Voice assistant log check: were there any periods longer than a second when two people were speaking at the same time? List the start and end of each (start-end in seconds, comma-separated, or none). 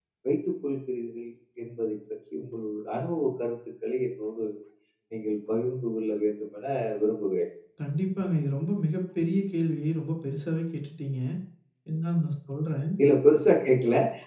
none